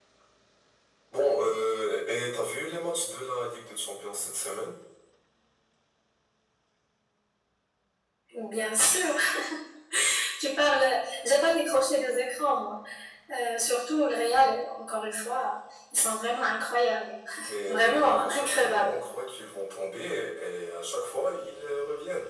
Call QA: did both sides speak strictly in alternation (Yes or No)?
No